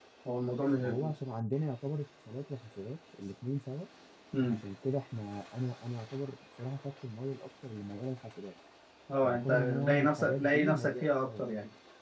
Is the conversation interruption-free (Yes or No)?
No